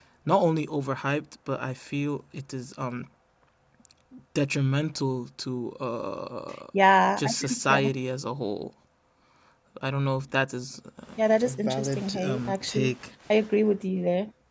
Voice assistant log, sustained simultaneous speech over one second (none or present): present